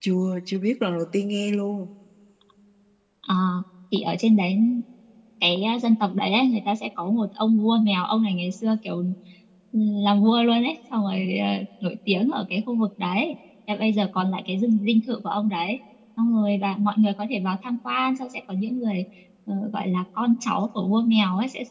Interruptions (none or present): none